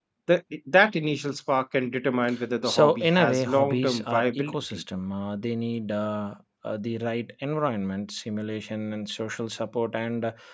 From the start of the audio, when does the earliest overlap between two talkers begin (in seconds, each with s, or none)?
2.6 s